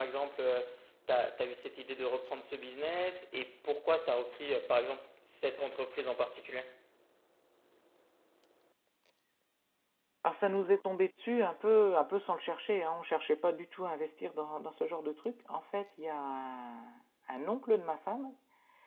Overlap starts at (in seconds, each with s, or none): none